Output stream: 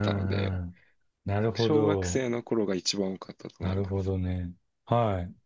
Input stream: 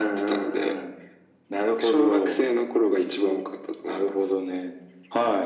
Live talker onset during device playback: none

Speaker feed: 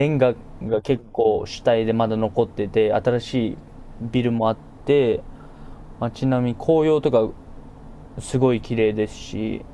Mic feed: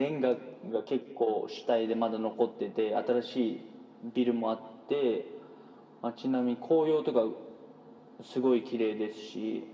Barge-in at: none

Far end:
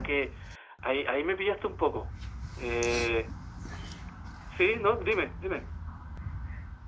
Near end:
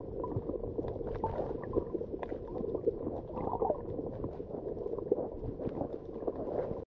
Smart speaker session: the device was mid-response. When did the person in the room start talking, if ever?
none

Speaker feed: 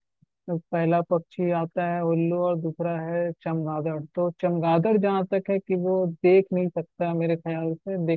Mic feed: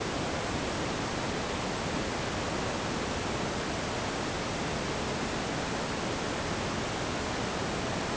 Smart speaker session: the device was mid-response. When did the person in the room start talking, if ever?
none

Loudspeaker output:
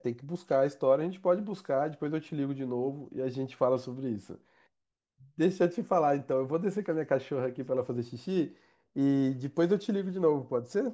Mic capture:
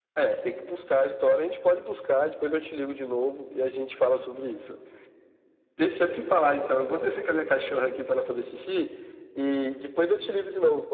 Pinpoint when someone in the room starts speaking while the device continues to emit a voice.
none

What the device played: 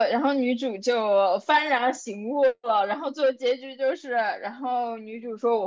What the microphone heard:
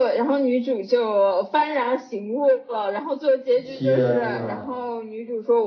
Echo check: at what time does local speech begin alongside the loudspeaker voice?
3.6 s

